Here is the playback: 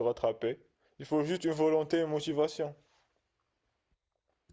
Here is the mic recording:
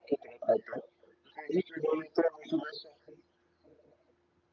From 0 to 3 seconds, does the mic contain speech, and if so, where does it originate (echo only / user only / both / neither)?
echo only